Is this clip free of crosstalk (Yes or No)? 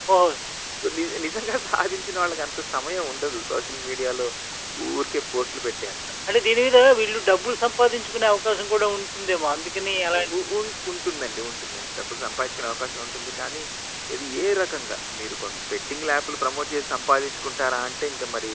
Yes